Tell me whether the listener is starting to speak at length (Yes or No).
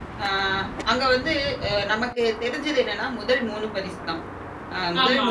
No